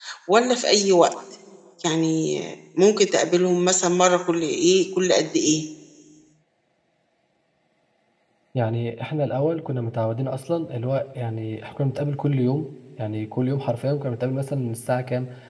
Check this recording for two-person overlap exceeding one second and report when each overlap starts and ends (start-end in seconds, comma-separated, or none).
none